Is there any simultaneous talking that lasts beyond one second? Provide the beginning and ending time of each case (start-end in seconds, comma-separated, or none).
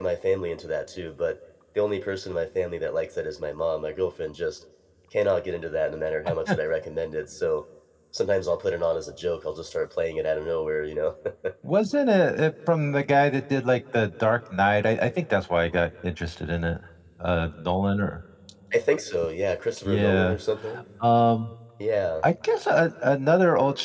none